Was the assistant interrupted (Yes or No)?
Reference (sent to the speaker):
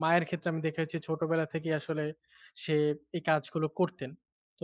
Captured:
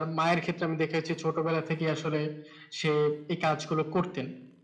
No